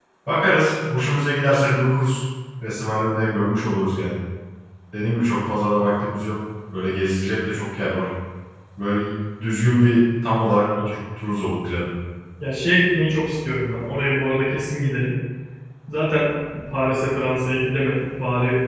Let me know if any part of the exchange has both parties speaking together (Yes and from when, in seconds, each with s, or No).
No